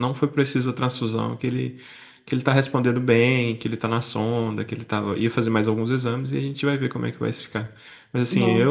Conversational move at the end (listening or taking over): listening